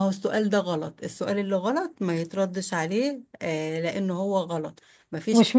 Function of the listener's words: taking over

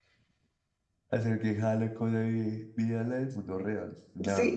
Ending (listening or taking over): listening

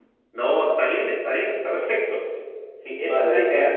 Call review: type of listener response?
taking over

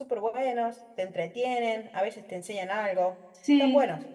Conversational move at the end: taking over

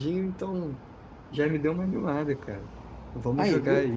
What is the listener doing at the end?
listening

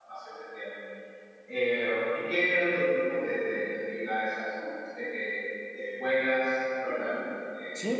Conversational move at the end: taking over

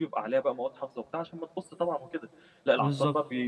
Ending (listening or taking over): listening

